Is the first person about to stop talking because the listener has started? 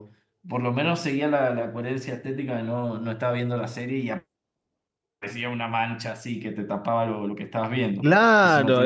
Yes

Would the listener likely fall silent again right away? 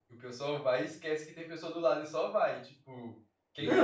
No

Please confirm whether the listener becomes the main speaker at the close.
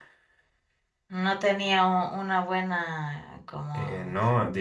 Yes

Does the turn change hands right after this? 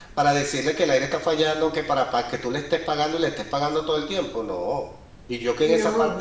No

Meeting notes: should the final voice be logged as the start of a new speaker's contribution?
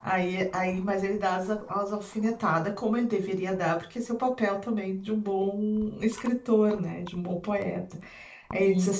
No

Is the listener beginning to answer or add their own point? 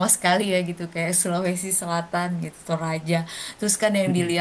No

